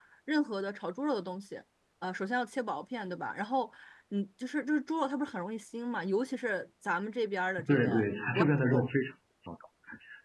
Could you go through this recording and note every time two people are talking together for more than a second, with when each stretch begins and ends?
none

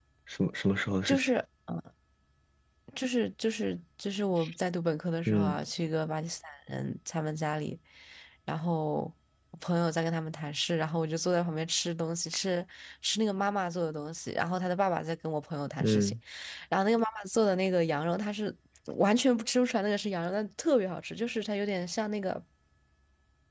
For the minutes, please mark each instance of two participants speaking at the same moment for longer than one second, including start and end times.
none

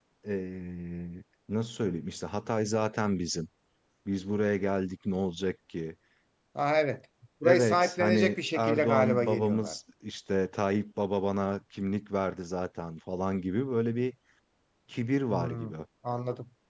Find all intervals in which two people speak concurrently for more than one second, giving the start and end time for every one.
7.4-9.7

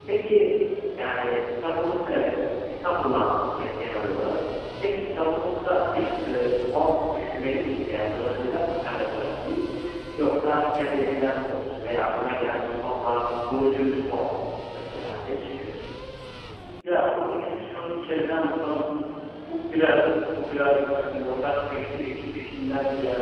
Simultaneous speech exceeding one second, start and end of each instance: none

